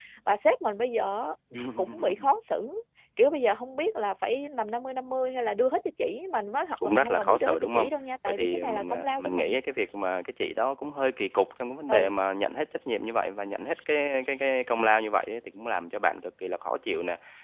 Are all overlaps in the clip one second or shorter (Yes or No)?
No